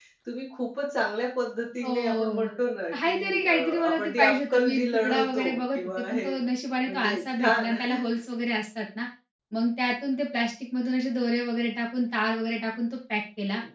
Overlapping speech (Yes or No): Yes